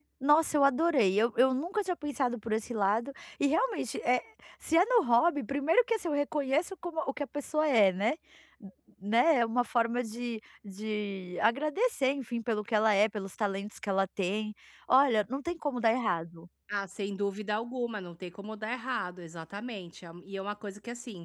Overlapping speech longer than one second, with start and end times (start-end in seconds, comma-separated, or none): none